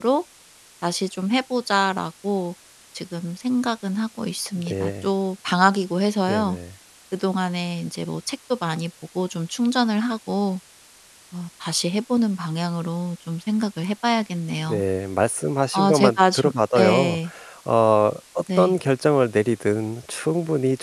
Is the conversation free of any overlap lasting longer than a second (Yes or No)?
No